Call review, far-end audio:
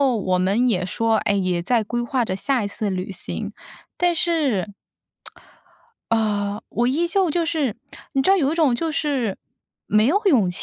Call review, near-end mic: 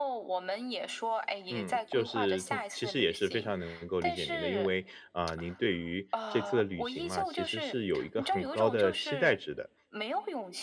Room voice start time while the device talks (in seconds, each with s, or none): 1.5 s